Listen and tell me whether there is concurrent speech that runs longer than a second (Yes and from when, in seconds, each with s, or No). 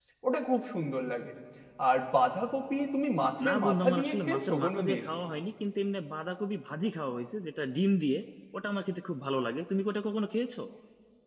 Yes, from 3.4 s